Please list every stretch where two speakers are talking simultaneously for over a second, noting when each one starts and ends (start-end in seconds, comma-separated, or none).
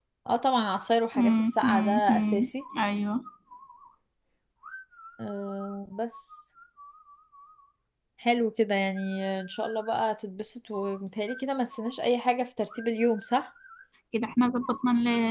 1.2-2.5